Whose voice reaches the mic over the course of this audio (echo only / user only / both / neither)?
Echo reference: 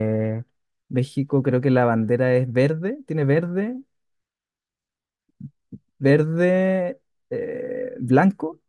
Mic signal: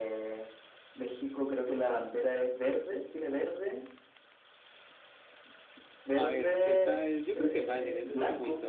both